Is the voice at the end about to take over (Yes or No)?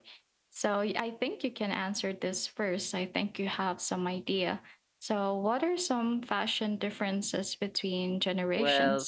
Yes